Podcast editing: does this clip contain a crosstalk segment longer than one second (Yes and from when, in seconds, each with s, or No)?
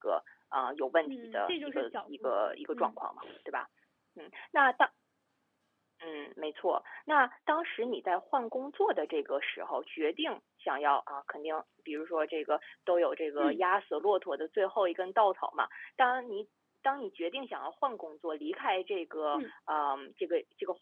Yes, from 1.0 s